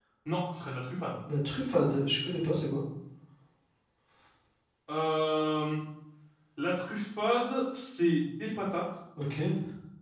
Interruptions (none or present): none